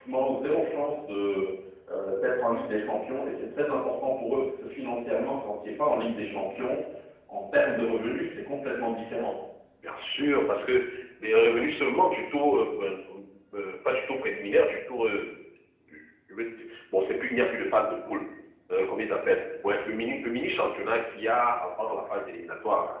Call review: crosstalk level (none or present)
none